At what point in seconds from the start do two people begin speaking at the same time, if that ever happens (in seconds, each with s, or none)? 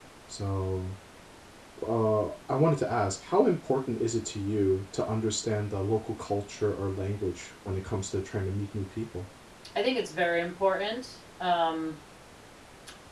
none